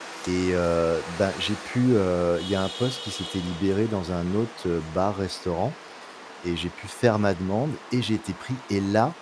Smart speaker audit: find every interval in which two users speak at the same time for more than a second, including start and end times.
none

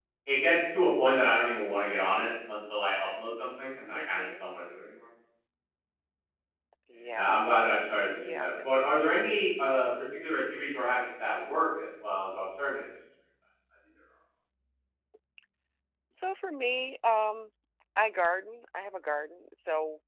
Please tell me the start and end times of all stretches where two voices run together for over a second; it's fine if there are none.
none

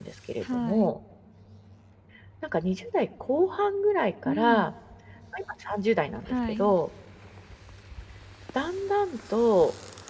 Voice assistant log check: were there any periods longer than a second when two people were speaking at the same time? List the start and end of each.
none

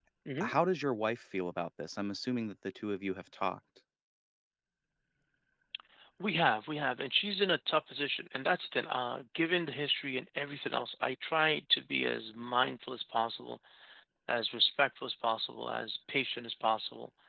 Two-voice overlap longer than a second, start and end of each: none

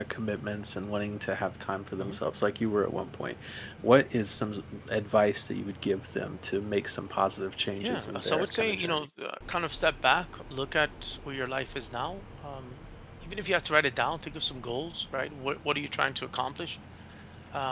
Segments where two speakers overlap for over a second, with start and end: 7.8-9.0

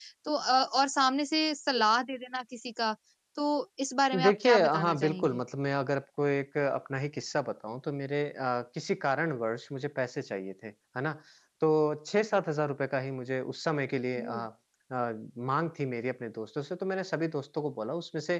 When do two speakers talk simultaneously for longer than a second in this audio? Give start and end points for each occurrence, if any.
4.1-5.4

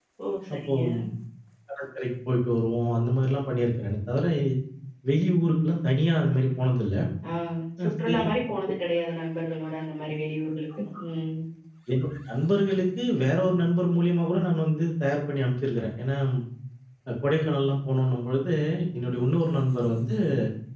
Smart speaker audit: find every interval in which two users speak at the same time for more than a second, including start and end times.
none

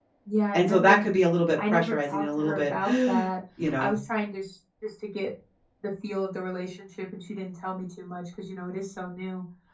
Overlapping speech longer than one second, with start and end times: 1.7-3.3

